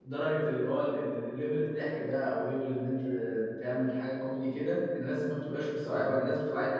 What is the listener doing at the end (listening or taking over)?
listening